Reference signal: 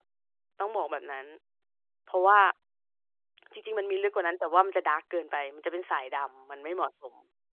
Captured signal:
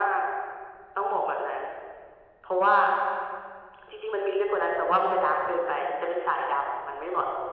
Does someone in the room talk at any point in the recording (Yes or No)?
No